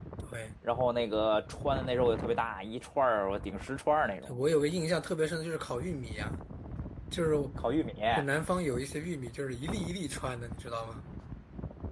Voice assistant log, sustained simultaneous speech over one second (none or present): none